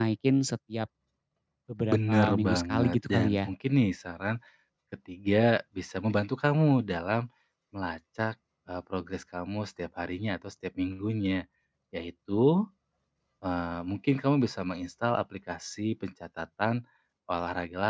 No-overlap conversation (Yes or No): No